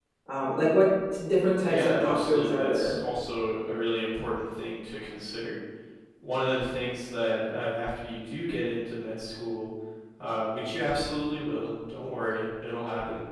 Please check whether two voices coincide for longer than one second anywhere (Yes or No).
Yes